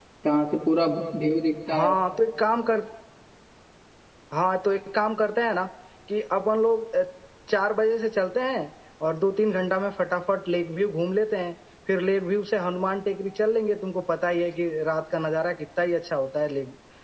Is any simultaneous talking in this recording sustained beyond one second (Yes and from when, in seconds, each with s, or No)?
No